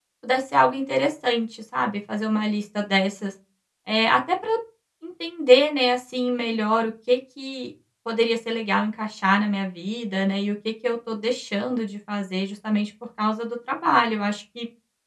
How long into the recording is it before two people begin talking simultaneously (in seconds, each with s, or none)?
none